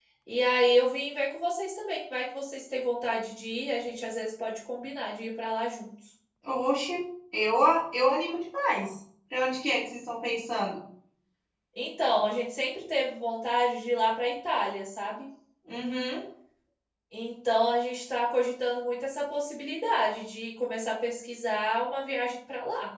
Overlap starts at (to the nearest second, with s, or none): none